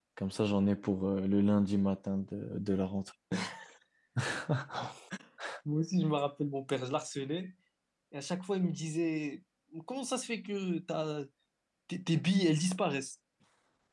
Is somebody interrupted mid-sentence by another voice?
No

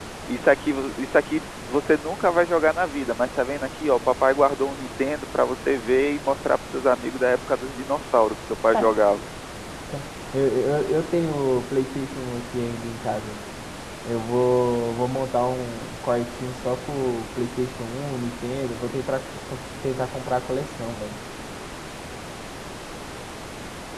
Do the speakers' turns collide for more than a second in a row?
No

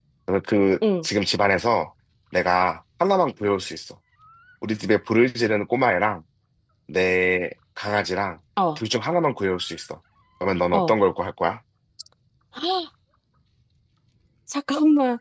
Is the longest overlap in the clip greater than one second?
No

